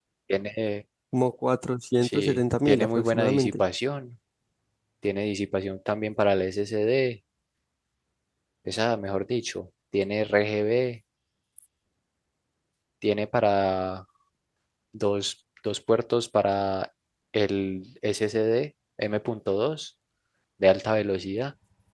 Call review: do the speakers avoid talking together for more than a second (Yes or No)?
No